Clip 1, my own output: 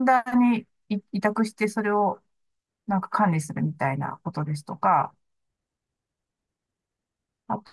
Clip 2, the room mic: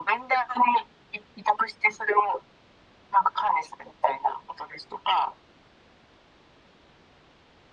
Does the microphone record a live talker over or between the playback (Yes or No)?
No